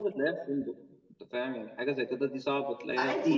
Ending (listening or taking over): taking over